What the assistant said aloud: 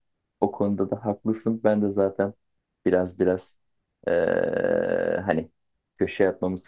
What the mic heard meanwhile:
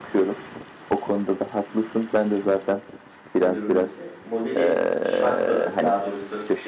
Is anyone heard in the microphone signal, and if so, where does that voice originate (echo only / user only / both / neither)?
both